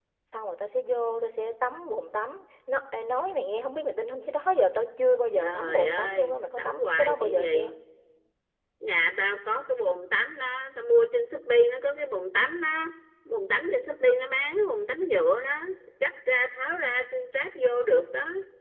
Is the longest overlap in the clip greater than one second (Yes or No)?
Yes